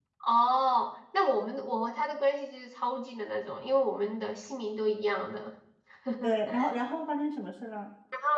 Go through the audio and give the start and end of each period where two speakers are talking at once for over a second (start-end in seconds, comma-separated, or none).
none